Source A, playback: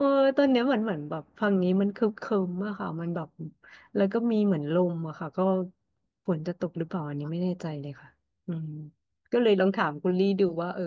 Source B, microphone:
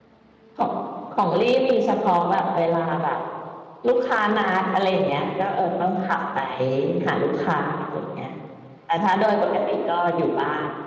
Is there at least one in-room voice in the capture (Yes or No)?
Yes